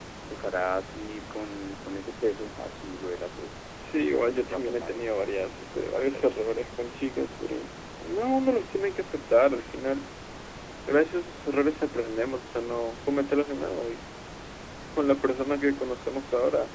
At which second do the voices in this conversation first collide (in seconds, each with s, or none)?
3.8 s